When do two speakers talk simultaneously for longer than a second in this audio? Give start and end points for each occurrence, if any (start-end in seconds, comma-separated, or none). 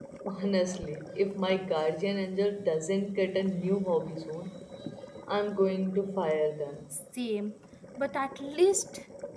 none